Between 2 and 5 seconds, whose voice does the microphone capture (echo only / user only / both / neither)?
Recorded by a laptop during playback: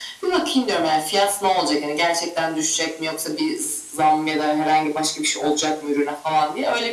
echo only